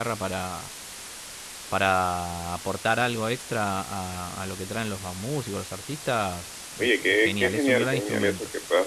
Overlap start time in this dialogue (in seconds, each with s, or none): 6.8 s